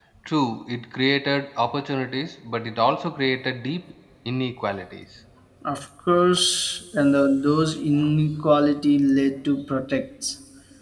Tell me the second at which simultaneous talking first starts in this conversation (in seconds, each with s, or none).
none